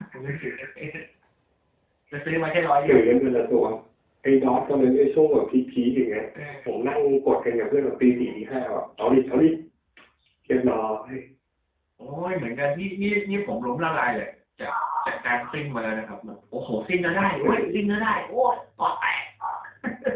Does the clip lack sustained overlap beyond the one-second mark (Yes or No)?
Yes